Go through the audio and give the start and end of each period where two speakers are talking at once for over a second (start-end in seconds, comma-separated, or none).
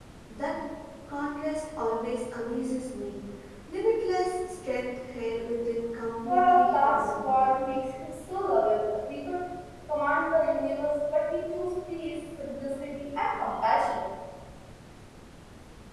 6.3-7.6